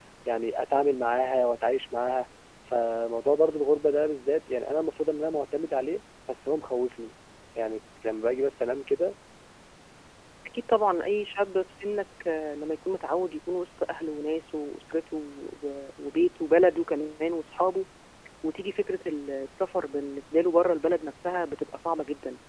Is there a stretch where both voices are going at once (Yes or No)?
No